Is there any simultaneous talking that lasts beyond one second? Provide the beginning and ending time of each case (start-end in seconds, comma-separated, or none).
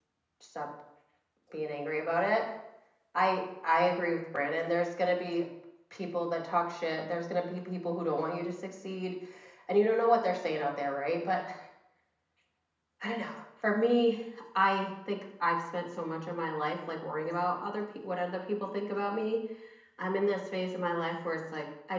none